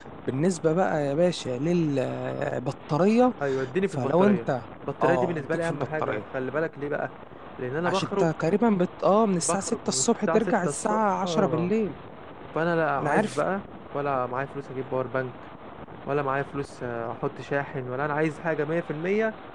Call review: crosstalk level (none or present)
present